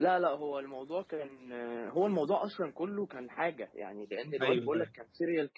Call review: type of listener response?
listening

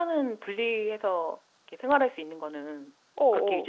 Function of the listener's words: taking over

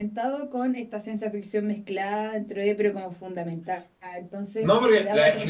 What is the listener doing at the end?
taking over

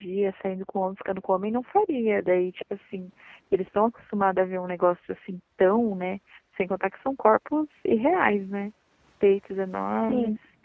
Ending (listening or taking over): listening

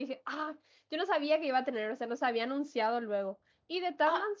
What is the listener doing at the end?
listening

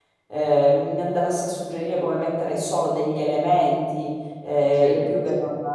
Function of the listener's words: listening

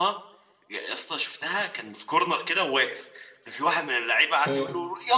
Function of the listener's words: listening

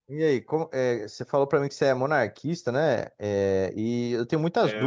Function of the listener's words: listening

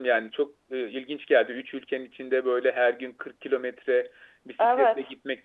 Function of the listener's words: listening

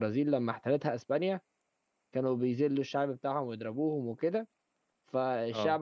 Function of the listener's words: listening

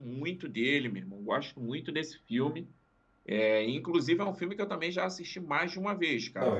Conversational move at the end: taking over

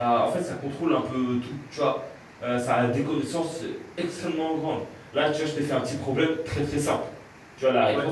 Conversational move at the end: listening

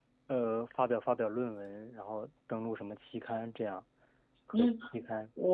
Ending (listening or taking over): taking over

